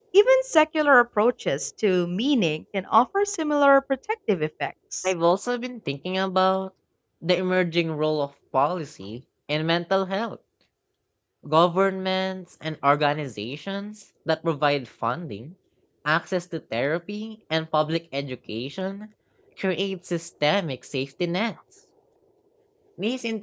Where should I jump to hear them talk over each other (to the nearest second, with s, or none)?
none